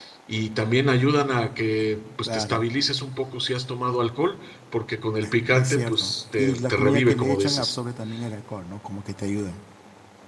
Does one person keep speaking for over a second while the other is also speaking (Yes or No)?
Yes